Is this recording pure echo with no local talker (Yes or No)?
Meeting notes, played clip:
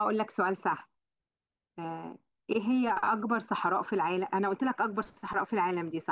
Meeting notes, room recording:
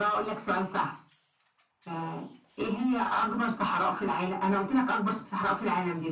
Yes